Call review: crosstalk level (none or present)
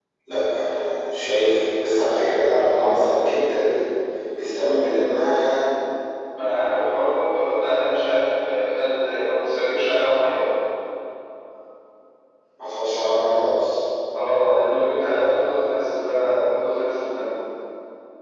none